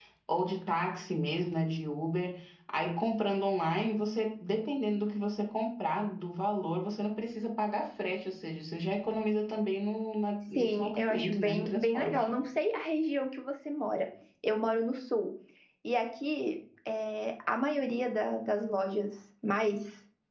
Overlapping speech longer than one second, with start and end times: 10.5-12.4

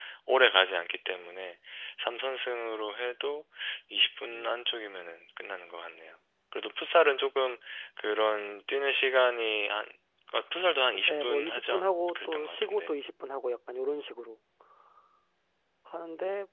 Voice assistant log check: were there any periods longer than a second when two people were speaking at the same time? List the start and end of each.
11.0-12.9

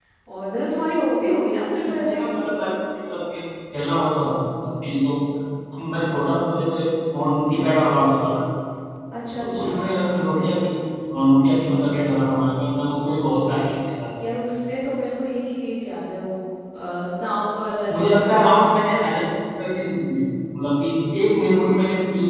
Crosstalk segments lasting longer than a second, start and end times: none

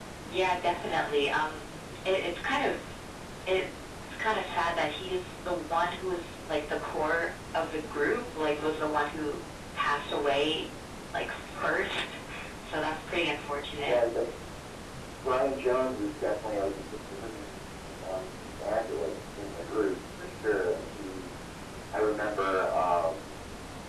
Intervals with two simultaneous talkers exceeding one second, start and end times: none

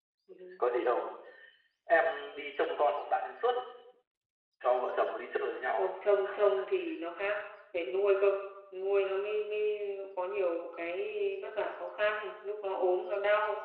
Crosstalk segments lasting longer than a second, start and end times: none

